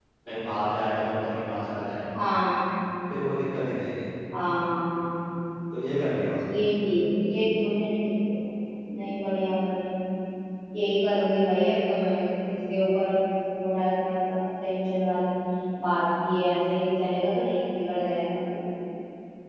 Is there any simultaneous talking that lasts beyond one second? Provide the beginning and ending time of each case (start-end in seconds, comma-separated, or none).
none